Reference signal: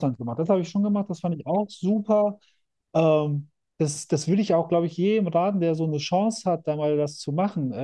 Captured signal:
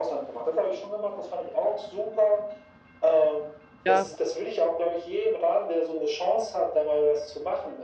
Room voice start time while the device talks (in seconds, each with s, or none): 3.8 s